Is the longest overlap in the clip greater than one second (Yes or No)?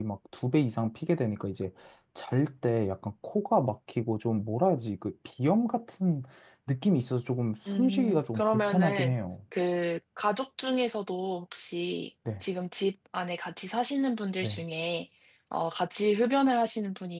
Yes